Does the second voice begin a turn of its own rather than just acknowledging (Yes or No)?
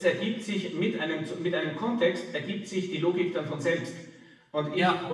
No